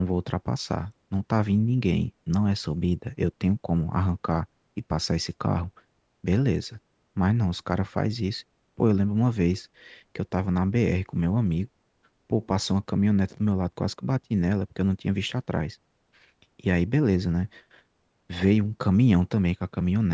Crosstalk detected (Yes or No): No